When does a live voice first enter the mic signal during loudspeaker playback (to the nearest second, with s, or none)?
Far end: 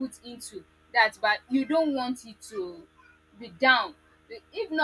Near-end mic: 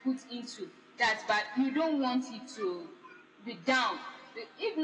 none